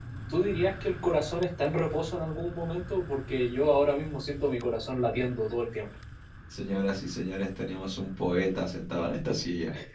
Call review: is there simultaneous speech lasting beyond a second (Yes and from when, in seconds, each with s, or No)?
No